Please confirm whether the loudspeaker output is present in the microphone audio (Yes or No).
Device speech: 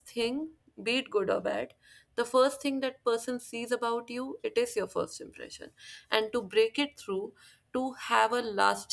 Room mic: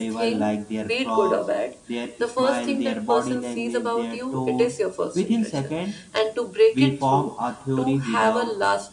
Yes